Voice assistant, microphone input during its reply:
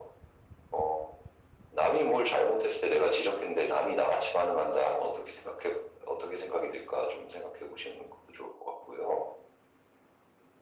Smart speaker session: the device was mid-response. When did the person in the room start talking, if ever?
none

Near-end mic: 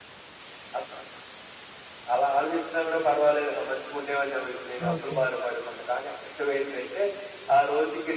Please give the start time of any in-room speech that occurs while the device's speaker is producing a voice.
4.9 s

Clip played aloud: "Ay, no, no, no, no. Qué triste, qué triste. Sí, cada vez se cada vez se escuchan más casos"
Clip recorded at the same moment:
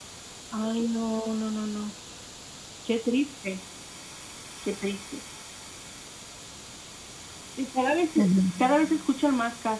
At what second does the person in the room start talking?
8.1 s

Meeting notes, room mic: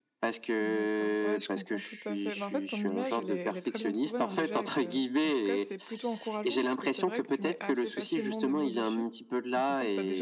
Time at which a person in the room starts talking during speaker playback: 0.6 s

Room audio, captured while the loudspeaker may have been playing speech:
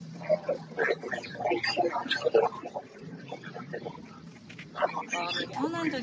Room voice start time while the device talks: 5.0 s

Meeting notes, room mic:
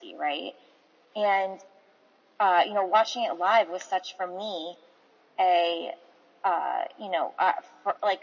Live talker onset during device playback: none

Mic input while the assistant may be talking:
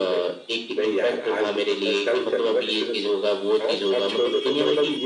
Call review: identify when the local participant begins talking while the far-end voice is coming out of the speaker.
none

